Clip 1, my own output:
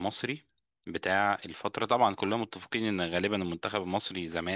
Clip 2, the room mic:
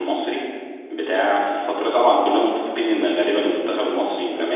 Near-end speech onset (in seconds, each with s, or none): none